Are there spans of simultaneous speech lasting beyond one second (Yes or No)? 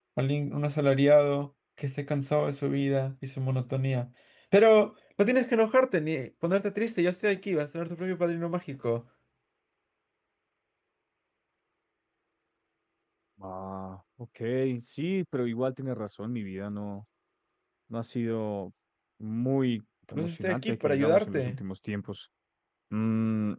Yes